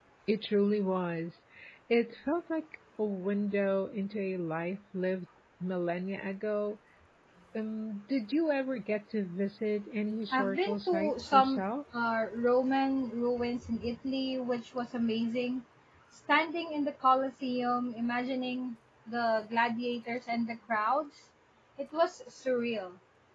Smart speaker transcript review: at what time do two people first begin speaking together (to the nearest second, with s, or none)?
10 s